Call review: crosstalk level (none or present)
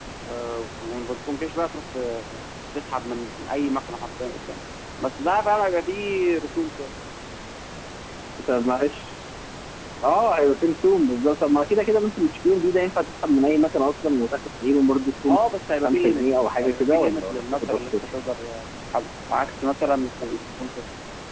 present